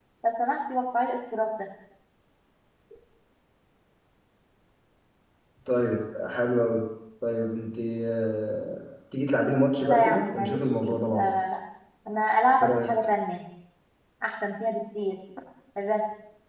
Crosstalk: present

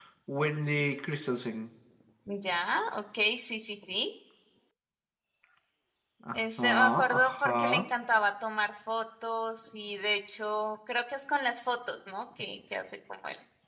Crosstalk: present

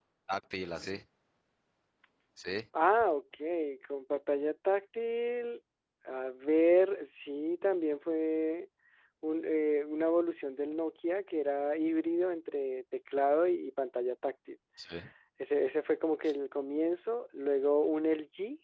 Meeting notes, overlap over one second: none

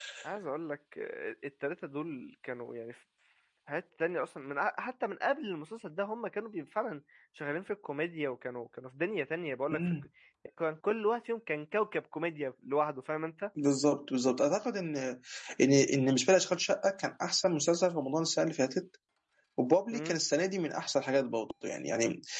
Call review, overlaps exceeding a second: none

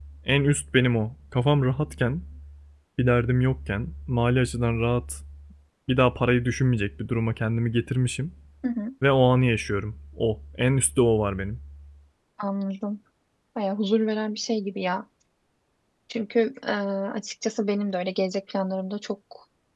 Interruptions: none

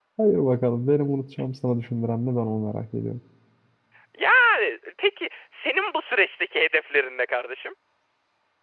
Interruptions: none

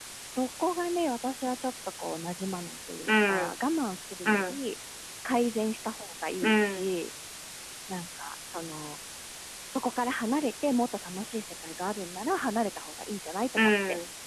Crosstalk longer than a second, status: none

